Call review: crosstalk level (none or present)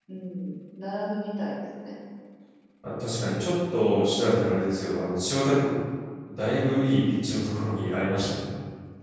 none